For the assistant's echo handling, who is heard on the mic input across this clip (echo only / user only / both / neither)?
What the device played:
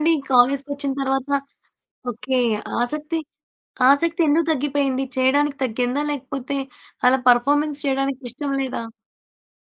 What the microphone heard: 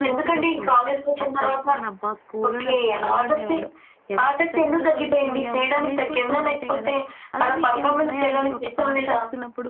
both